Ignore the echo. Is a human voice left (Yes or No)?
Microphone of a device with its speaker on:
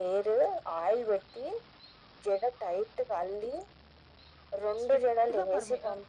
Yes